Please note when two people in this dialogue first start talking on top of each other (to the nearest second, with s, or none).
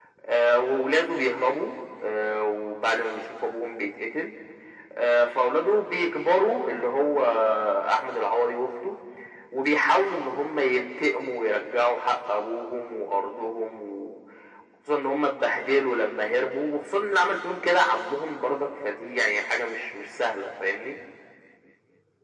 none